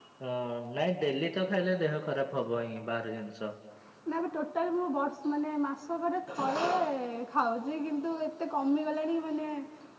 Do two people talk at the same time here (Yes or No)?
No